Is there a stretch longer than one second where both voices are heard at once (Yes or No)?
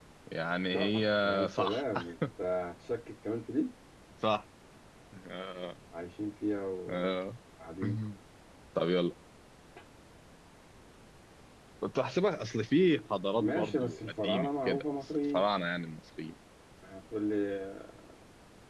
Yes